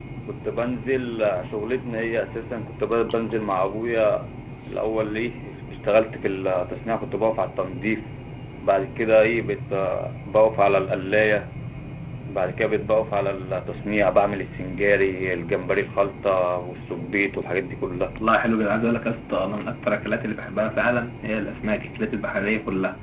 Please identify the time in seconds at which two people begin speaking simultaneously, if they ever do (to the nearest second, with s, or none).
none